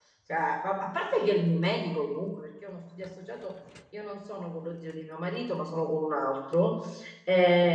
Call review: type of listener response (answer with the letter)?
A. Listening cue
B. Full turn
A